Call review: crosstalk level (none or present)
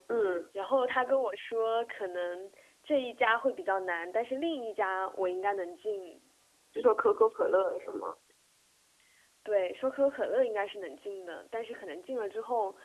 none